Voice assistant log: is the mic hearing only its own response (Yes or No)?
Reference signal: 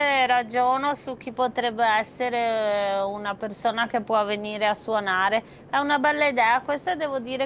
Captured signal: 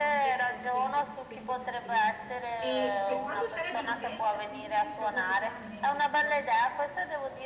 No